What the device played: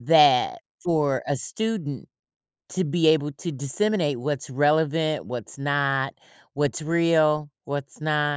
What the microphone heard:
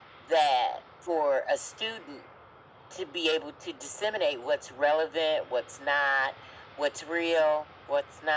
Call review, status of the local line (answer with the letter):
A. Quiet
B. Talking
A